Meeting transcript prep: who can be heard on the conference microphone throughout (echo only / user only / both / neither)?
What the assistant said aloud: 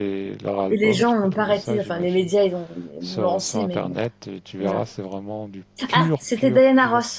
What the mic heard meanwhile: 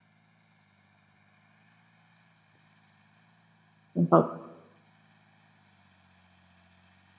user only